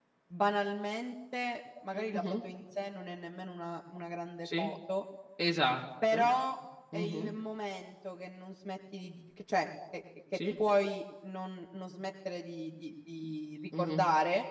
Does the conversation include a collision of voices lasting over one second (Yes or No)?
No